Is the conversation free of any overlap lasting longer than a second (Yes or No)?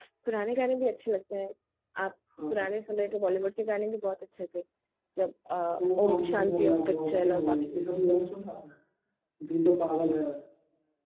No